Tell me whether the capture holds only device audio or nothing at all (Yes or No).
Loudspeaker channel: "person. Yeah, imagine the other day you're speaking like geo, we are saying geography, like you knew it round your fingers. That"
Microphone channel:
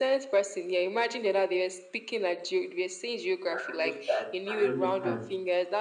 No